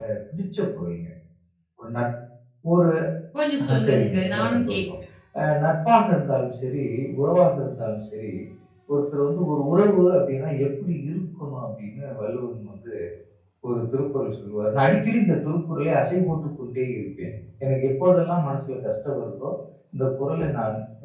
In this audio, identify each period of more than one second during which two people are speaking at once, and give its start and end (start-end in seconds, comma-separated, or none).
3.6-4.8